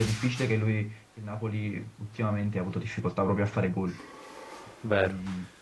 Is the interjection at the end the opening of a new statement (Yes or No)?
Yes